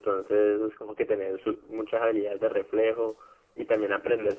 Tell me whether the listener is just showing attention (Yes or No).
Yes